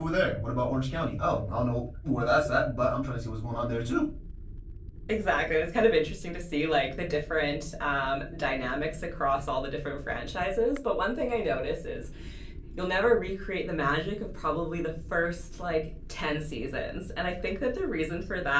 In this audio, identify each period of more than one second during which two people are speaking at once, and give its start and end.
none

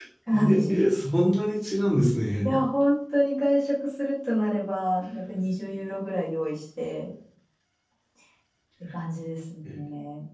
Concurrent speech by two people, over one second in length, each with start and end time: none

